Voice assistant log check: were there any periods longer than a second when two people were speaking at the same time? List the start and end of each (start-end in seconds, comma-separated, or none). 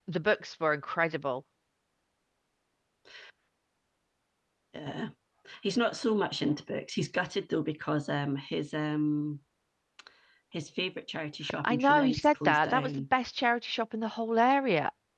11.6-12.9